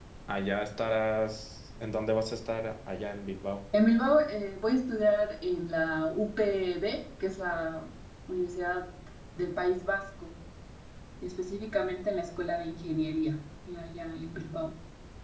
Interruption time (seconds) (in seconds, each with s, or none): none